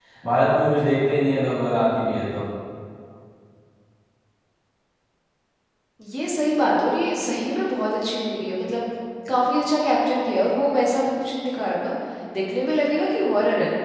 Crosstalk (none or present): none